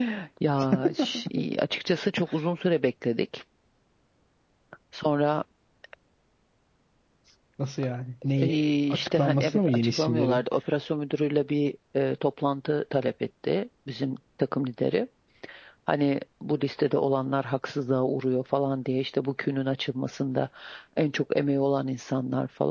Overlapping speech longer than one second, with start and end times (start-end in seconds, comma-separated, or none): 8.4-10.4